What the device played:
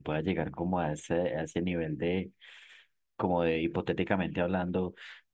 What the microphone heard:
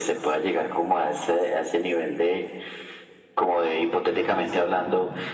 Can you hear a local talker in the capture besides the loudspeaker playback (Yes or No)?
Yes